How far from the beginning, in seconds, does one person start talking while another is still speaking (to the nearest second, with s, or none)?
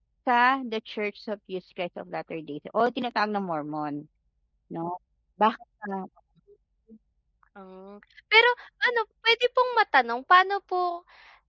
none